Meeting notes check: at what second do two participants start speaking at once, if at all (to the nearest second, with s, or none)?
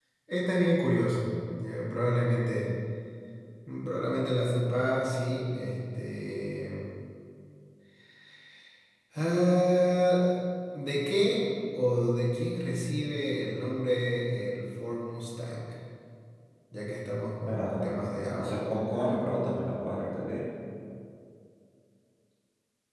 17 s